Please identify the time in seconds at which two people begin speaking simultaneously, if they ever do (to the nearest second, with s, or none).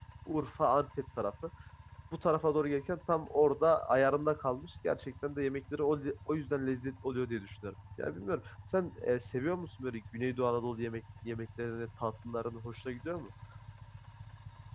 none